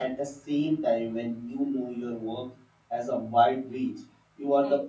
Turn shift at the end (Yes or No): No